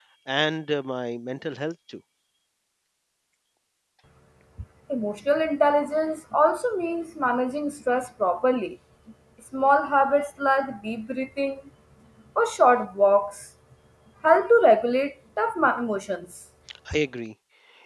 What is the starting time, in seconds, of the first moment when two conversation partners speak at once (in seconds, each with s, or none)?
none